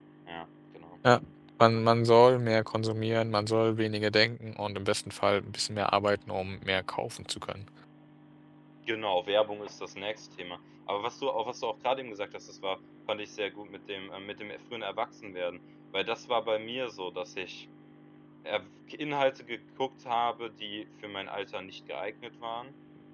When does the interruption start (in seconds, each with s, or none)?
none